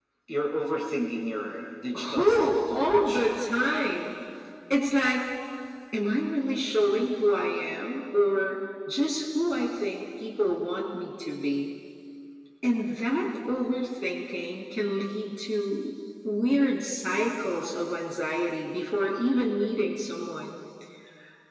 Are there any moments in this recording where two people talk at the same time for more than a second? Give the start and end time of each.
1.9-3.3

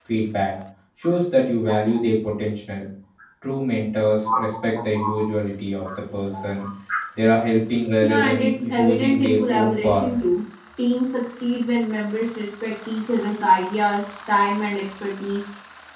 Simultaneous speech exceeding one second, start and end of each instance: 8.0-10.1

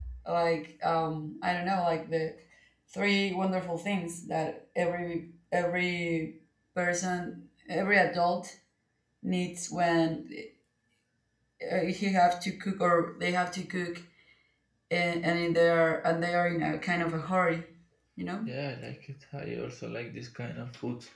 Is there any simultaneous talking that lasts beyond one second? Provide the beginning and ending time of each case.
none

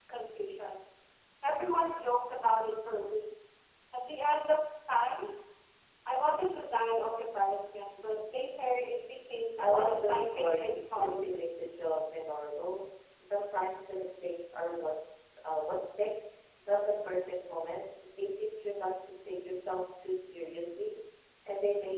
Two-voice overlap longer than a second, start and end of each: 9.6-11.3

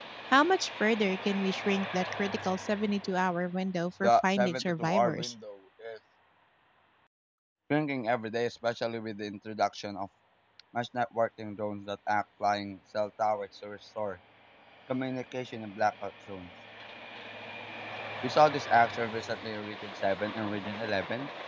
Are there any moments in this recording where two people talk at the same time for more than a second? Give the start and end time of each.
4.0-5.3

